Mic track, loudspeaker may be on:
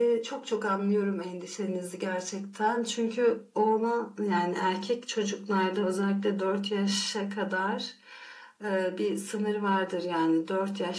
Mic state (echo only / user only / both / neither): echo only